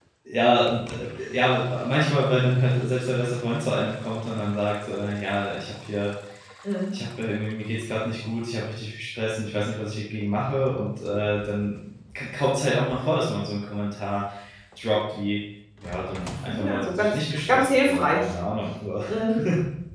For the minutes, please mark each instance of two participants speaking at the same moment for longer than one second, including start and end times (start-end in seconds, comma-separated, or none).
16.6-18.3